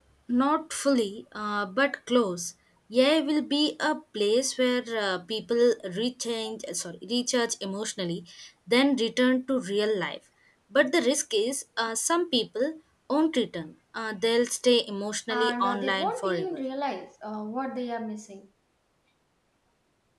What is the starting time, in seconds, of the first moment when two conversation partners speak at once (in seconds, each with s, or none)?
15.3 s